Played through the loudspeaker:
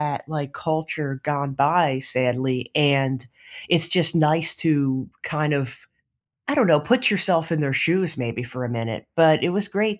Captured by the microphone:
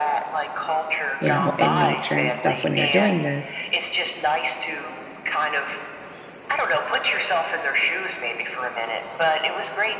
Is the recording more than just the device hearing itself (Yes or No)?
Yes